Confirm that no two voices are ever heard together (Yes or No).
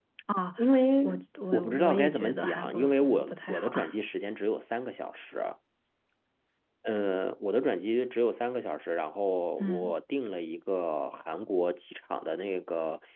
No